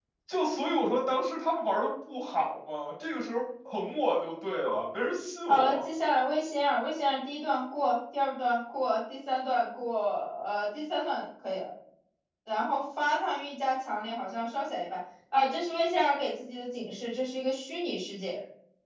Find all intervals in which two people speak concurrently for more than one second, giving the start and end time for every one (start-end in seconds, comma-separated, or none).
none